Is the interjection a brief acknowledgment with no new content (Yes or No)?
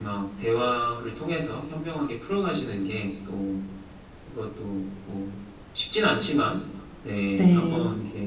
Yes